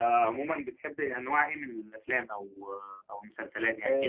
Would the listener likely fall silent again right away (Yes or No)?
No